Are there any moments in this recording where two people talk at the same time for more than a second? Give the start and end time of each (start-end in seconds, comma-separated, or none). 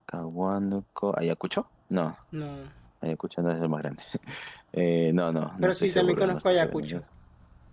5.6-7.0